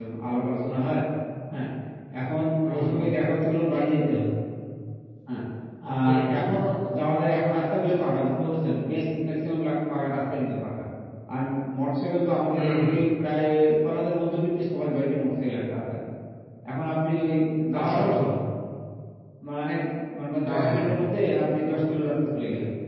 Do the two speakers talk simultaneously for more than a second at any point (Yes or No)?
No